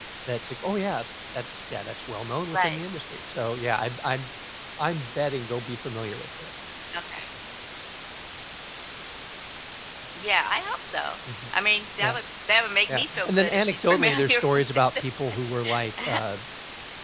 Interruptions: present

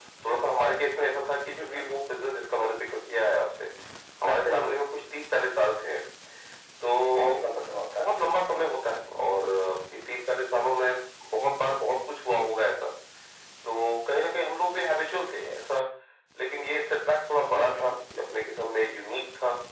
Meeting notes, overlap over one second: none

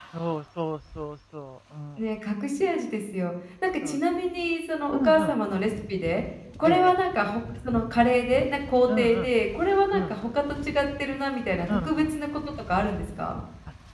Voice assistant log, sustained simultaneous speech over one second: none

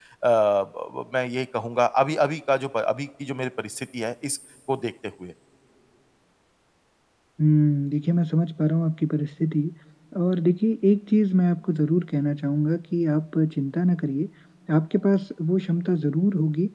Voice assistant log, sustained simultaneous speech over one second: none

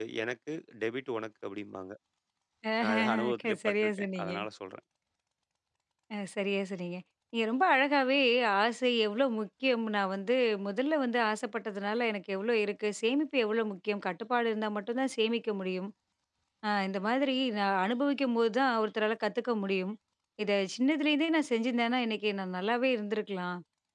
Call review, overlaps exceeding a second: present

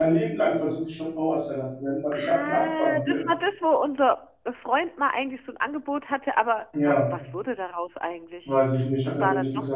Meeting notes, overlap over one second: present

